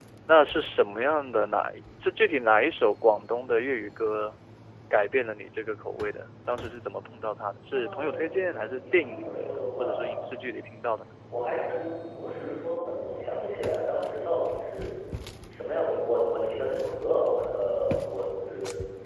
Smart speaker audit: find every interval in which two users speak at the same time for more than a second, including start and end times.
7.7-10.3

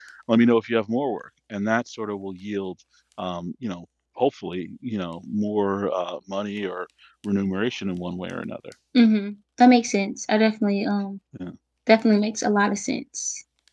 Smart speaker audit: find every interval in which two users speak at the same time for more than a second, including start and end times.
none

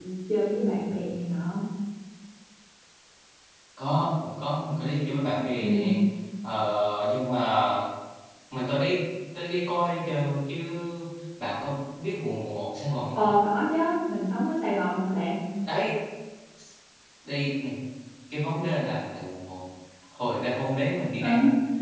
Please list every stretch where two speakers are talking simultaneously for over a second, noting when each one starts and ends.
none

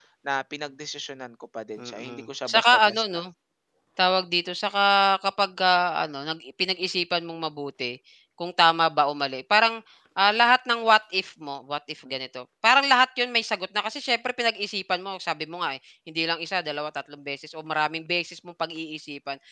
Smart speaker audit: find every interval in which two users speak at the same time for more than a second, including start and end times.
1.8-3.2

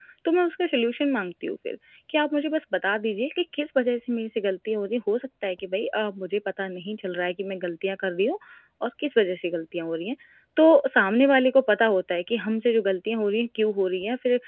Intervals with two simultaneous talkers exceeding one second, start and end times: none

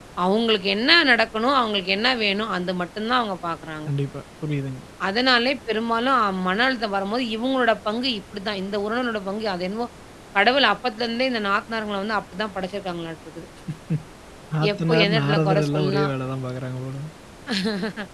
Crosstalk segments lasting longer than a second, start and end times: 14.7-16.1

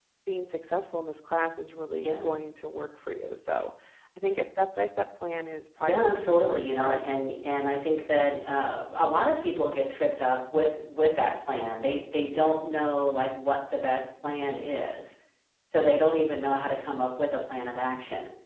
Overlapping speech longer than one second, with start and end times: 5.8-7.0

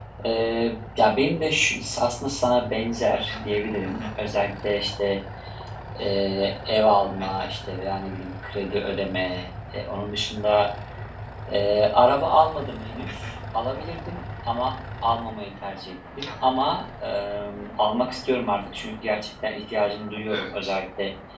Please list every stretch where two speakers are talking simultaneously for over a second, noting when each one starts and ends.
none

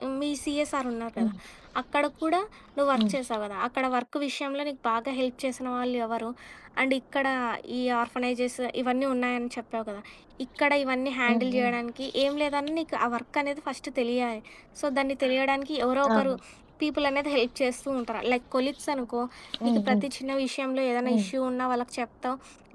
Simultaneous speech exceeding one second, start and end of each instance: none

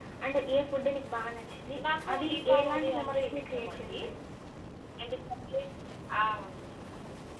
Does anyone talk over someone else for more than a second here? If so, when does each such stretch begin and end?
2.1-3.9

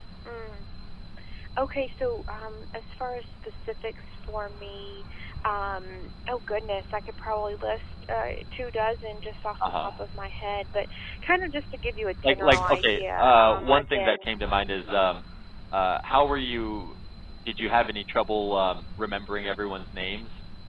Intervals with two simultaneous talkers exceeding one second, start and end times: 12.2-14.3

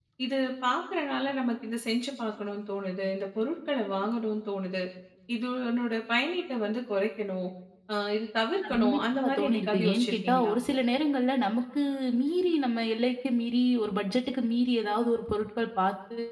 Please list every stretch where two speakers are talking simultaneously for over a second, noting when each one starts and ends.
8.7-10.5

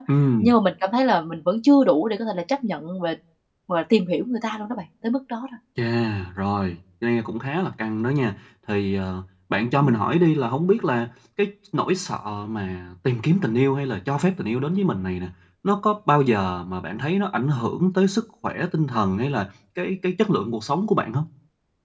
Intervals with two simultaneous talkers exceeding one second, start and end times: none

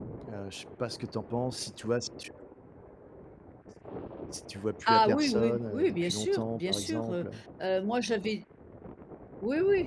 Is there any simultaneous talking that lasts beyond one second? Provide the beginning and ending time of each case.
4.9-7.2

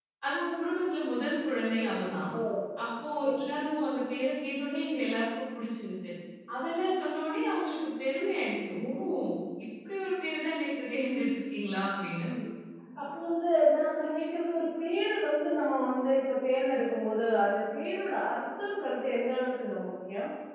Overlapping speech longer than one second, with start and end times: none

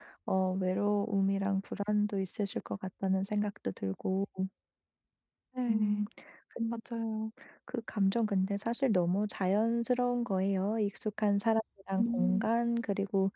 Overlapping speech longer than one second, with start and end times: none

